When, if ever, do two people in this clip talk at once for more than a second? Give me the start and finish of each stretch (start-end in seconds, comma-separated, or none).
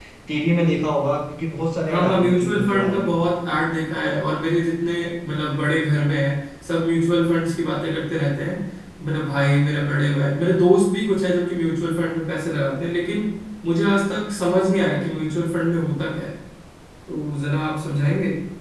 1.9-3.1